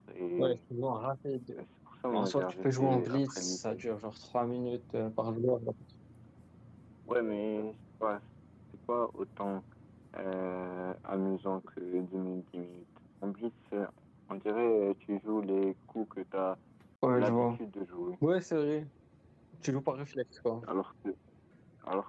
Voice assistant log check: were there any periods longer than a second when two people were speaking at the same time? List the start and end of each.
2.1-3.8

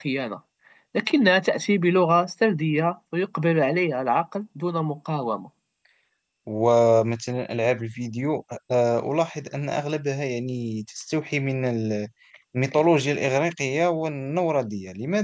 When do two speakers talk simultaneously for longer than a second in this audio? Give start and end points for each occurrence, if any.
none

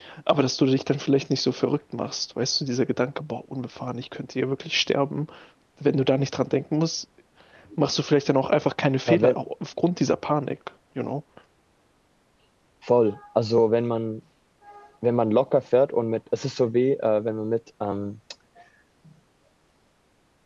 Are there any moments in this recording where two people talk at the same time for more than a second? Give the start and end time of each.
none

